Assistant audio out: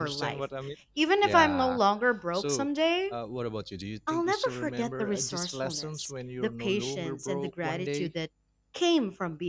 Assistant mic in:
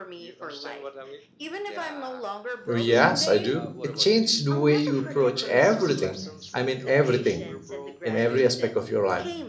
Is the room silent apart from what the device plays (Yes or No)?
No